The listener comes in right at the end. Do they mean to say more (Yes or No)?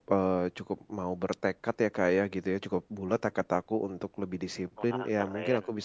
No